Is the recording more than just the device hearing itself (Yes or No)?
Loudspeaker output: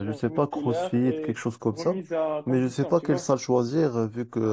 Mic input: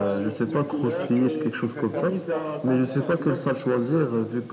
Yes